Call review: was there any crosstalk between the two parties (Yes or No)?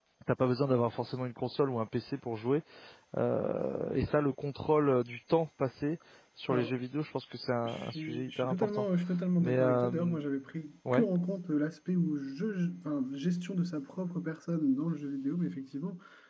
Yes